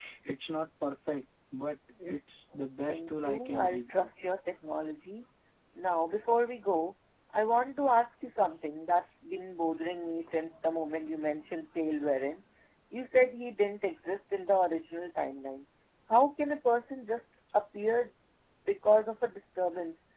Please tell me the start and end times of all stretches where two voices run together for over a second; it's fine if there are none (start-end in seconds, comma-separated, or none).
2.9-4.1